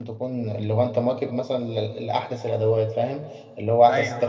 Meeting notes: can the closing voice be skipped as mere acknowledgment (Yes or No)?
Yes